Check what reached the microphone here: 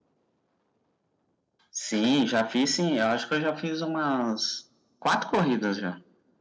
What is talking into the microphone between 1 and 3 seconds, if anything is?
echo only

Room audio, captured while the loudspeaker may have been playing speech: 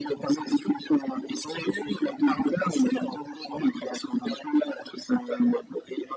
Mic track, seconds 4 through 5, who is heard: echo only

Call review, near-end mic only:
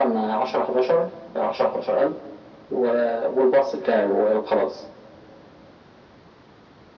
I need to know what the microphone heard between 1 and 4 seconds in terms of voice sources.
echo only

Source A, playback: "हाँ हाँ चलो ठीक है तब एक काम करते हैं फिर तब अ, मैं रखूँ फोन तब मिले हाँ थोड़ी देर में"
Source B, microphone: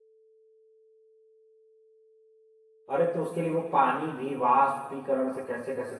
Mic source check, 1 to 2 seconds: neither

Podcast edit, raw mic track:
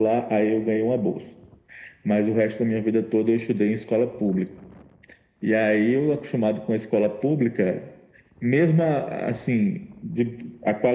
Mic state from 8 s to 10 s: echo only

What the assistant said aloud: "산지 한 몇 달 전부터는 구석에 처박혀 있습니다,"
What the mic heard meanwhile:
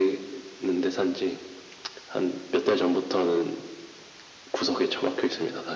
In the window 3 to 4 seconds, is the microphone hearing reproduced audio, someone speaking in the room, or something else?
echo only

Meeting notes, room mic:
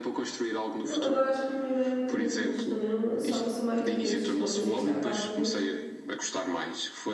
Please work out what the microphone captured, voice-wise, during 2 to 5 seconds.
both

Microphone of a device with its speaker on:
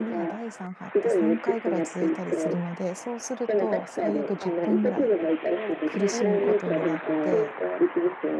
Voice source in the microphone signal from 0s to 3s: both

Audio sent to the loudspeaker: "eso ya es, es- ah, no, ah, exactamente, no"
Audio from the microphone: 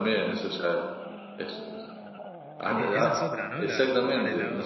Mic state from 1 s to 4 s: both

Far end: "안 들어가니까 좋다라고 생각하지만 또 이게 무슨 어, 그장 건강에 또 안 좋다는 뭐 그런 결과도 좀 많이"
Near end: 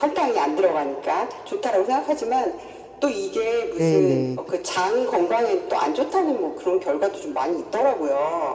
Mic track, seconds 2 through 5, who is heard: both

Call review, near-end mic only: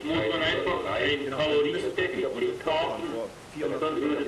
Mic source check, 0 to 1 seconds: echo only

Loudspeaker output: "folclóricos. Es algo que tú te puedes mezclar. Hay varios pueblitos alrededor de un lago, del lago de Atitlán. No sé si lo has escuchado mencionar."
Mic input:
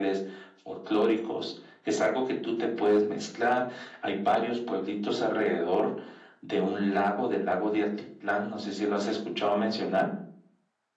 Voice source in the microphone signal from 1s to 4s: echo only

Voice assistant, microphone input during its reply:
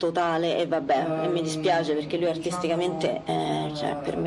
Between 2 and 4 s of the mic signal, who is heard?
both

